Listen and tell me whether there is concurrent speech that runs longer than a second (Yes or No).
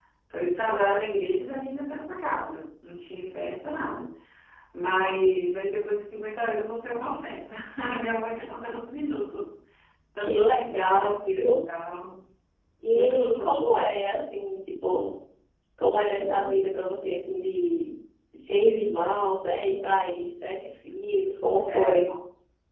Yes